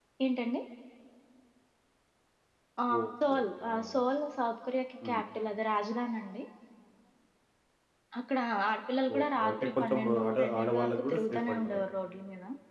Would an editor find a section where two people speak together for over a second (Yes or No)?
Yes